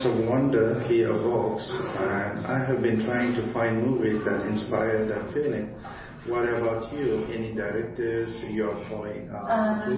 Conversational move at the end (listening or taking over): taking over